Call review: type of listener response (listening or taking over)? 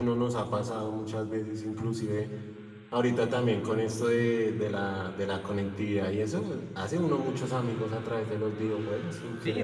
taking over